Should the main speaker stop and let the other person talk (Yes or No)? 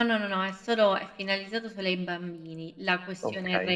No